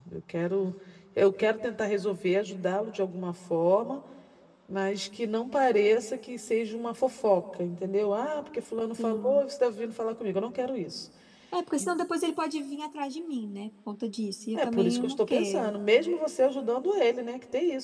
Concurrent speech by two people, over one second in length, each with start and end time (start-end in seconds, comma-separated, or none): 14.5-15.7